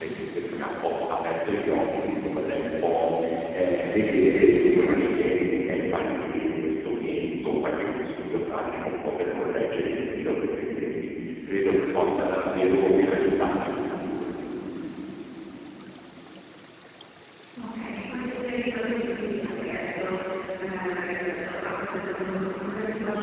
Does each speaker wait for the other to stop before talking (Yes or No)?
Yes